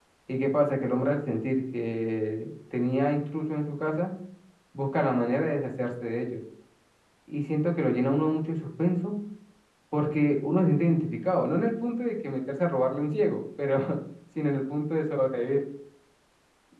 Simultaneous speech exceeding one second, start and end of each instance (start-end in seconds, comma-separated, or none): none